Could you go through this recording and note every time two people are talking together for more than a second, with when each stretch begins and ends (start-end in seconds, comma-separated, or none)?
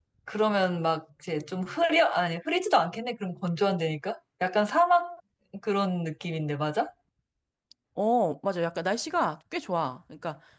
none